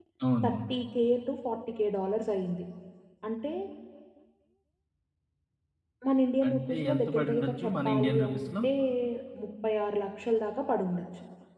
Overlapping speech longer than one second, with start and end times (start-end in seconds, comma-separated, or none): 6.5-8.5